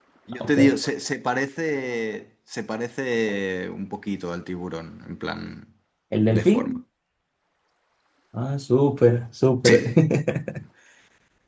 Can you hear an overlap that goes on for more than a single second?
No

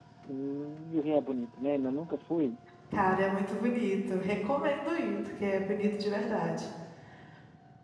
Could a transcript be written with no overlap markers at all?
Yes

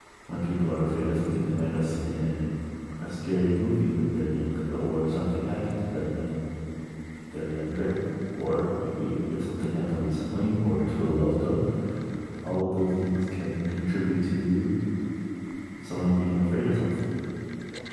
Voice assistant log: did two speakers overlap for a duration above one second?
No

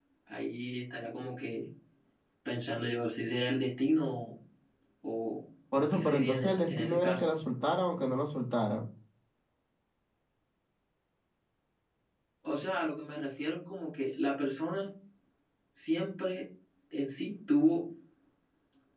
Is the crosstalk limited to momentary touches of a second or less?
No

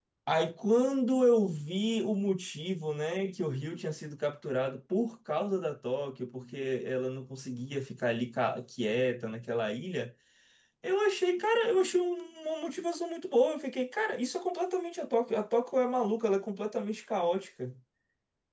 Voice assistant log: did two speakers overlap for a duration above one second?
No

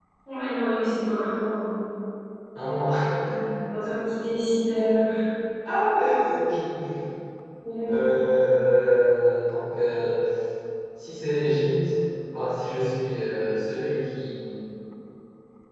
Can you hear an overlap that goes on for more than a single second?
No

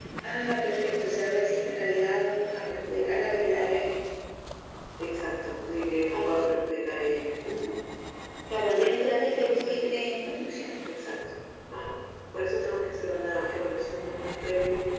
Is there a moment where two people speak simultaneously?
Yes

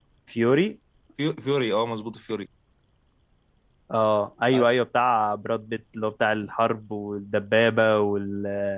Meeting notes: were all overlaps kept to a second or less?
Yes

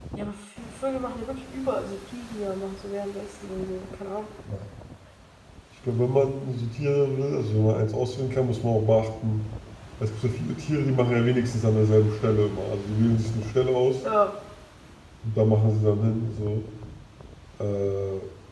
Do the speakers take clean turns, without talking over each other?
Yes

